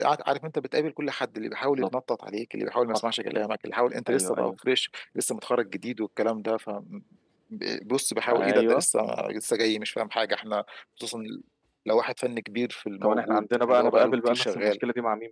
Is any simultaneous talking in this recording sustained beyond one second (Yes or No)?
Yes